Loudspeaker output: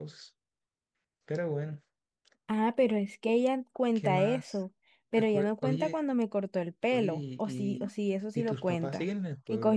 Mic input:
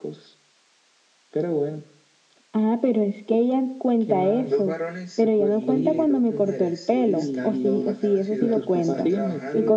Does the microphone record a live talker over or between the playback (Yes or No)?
Yes